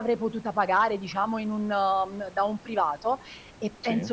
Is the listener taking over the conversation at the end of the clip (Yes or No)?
No